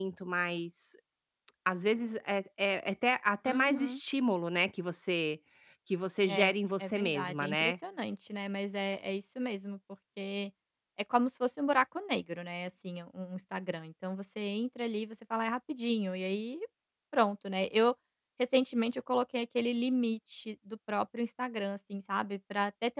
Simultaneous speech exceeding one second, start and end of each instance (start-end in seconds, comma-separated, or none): 6.3-7.7